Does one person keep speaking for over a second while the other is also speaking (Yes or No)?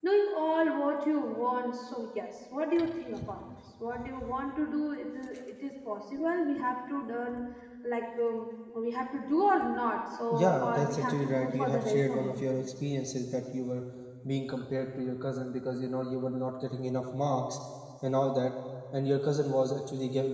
Yes